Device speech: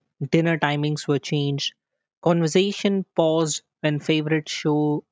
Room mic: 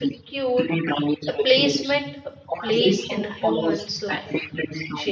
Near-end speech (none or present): present